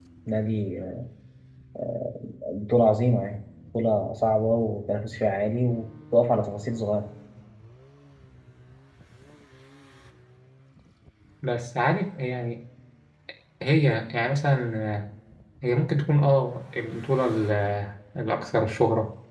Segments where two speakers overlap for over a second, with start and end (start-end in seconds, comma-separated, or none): none